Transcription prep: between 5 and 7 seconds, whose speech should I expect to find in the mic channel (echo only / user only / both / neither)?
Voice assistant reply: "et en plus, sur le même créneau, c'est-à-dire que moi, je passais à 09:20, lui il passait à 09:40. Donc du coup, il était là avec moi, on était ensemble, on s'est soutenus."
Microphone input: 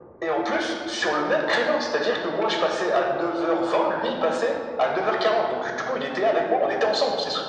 echo only